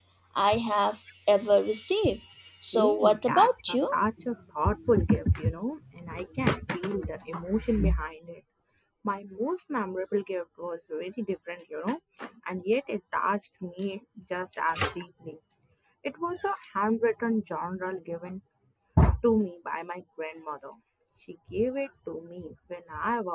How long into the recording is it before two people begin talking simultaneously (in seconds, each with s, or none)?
2.7 s